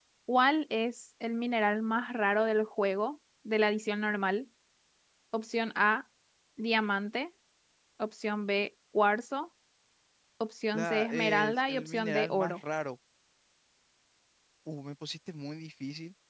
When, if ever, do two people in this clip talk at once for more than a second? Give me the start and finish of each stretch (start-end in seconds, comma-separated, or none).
10.7-12.6